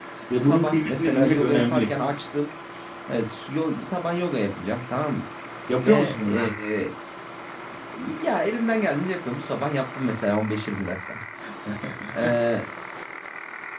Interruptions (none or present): present